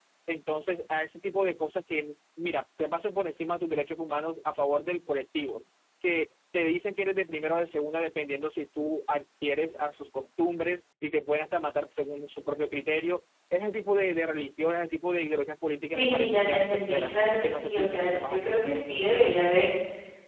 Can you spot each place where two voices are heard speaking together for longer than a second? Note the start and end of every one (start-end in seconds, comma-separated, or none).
15.9-18.6